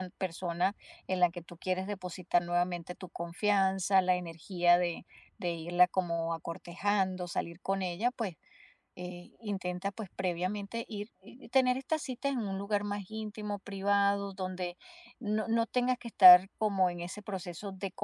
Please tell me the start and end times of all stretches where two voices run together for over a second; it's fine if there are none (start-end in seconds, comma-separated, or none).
none